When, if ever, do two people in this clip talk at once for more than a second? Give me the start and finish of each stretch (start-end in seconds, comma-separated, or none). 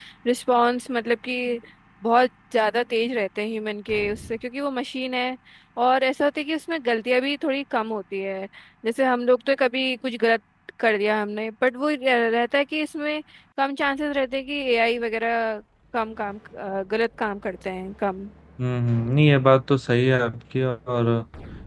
none